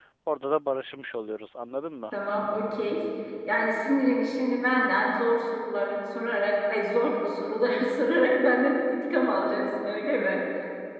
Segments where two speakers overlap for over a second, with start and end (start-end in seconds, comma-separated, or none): none